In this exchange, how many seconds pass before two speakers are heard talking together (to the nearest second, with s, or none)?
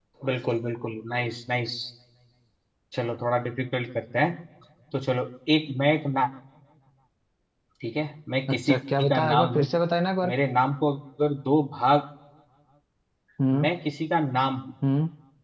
8 s